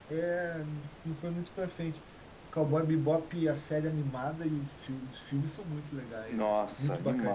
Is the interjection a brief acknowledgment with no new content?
No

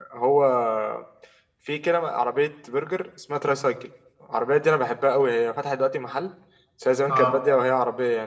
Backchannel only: Yes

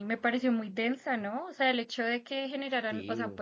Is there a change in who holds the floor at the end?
No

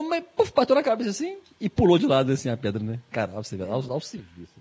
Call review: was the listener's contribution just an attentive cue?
Yes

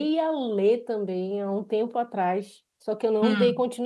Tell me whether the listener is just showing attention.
Yes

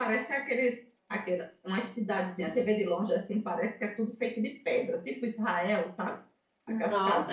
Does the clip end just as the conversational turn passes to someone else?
Yes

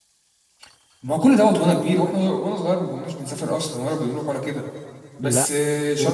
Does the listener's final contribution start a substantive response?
No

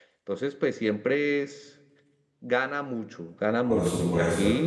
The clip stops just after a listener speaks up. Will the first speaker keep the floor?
Yes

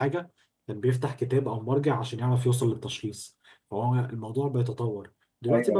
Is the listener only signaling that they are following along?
Yes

